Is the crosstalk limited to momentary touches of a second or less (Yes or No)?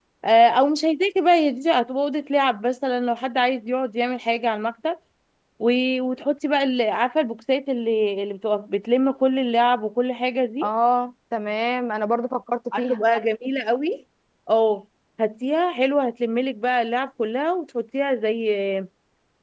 Yes